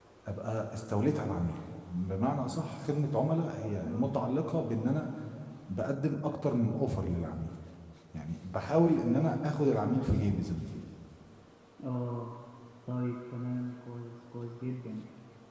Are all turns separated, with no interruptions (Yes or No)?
Yes